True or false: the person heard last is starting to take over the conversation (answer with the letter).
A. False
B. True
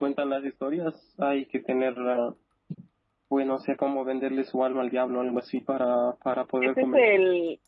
B